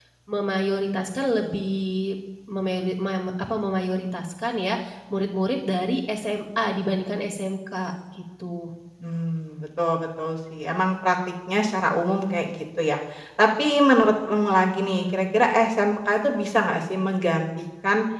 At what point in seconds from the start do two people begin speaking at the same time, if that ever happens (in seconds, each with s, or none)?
none